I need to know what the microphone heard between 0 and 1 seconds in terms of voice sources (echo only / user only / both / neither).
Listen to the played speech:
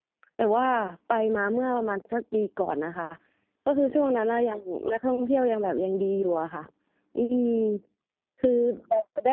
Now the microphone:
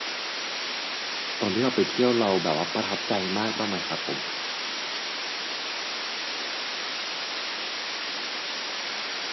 neither